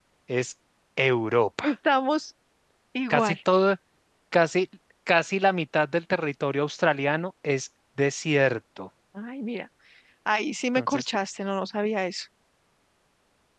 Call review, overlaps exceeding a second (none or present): none